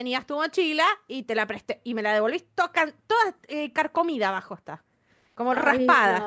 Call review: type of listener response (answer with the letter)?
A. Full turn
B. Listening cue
A